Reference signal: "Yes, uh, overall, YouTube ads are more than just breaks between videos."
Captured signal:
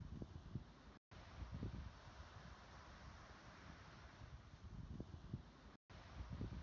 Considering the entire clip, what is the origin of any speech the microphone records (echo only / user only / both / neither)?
neither